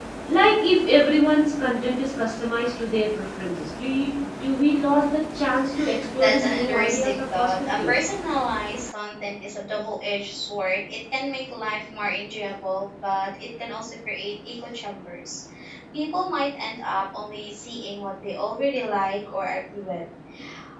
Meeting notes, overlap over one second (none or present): present